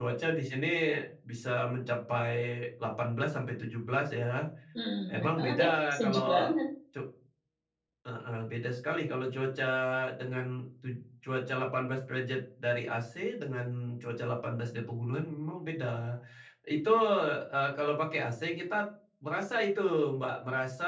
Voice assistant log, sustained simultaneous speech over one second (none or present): present